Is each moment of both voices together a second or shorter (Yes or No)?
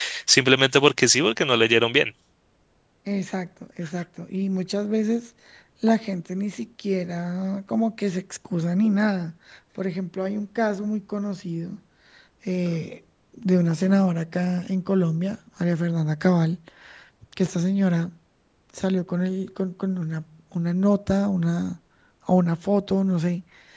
Yes